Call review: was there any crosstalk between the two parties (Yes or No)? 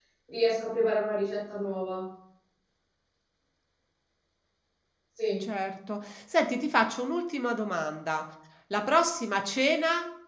No